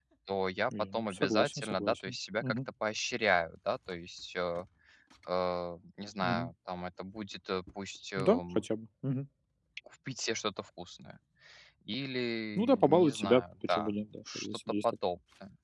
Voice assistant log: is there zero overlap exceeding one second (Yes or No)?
No